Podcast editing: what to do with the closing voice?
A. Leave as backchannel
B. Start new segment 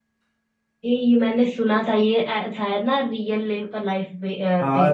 B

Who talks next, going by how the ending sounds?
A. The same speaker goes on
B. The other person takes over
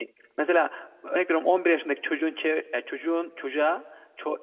A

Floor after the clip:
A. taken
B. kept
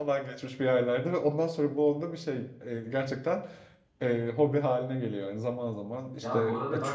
A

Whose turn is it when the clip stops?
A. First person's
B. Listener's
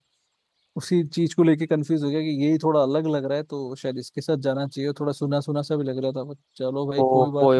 B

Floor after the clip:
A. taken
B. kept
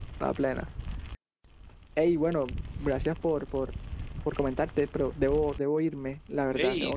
A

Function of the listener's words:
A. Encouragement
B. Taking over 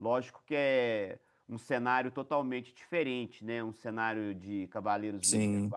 A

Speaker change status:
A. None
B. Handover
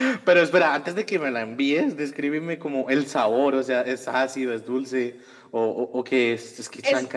B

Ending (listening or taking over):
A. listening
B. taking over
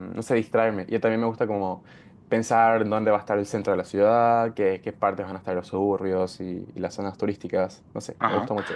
B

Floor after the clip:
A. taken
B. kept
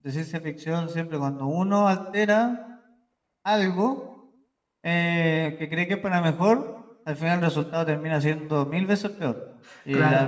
B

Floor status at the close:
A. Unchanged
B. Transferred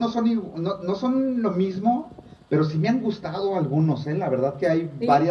A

